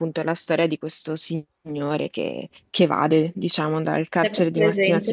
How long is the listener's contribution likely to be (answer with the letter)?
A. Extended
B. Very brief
A